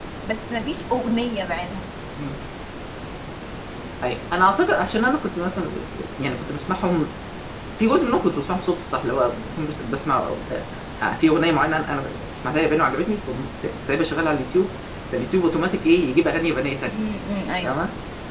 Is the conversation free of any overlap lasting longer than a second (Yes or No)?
Yes